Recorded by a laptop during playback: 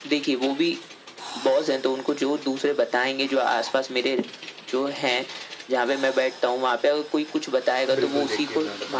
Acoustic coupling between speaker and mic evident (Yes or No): Yes